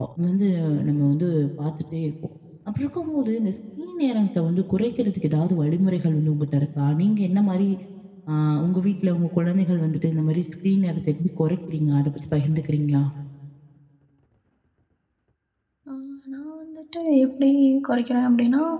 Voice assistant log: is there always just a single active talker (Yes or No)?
Yes